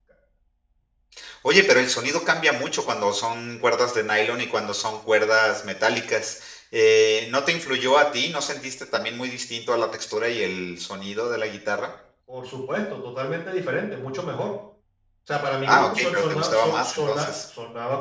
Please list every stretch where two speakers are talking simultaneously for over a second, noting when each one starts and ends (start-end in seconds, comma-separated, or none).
15.7-17.3